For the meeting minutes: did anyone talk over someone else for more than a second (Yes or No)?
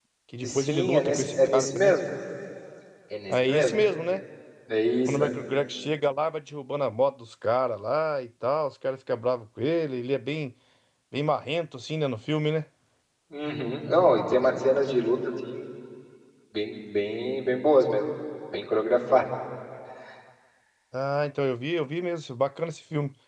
Yes